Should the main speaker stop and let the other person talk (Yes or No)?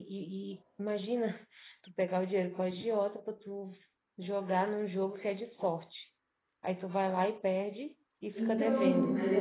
Yes